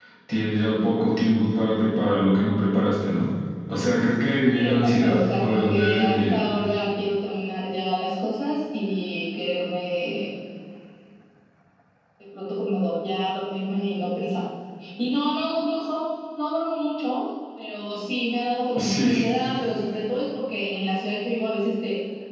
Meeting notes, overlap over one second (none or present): present